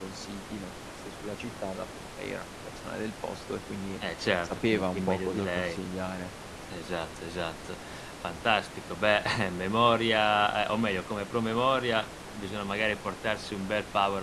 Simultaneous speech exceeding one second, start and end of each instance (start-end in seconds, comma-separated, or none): 4.4-5.8